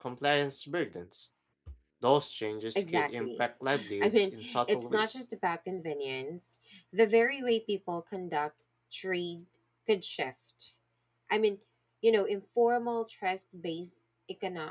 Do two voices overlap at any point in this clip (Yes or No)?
Yes